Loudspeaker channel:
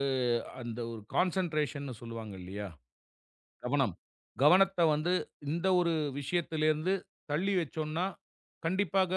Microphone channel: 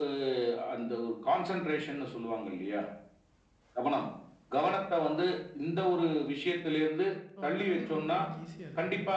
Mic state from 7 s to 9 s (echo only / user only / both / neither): both